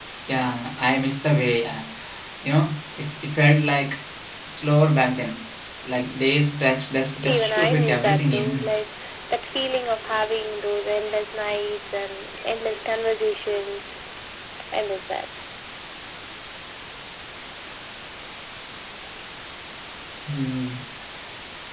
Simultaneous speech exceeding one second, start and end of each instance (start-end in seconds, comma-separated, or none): 7.2-8.7